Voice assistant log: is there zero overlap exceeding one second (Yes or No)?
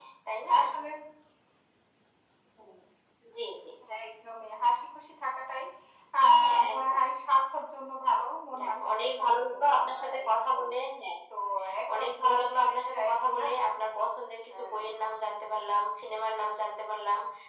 No